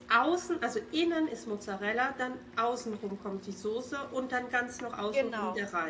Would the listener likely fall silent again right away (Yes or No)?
Yes